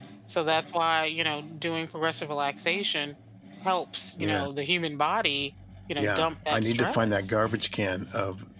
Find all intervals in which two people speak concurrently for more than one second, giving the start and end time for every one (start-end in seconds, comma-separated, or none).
6.0-7.3